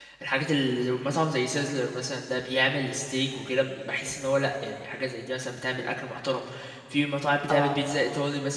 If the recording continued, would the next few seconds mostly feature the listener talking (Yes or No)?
No